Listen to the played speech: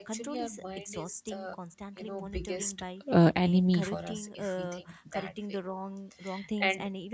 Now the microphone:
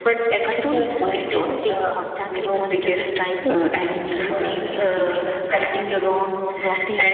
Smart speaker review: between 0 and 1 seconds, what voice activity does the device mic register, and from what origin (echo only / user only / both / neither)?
echo only